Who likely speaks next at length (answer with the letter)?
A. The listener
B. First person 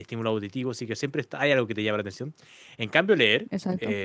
B